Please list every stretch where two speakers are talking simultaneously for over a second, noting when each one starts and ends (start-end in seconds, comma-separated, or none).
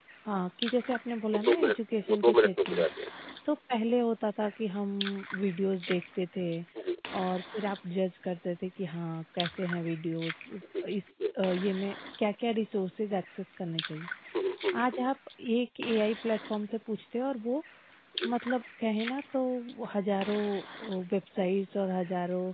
1.3-2.9